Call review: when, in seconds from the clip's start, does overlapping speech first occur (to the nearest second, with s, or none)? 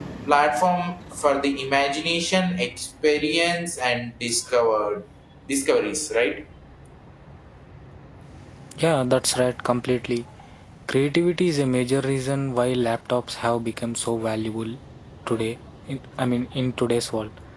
none